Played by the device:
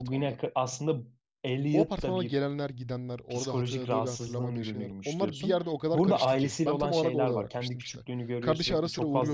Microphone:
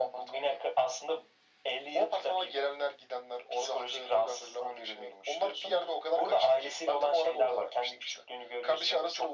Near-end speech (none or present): none